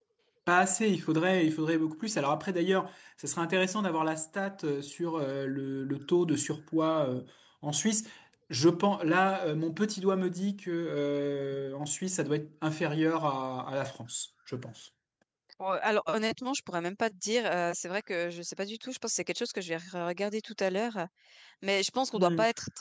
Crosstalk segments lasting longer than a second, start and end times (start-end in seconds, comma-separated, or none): none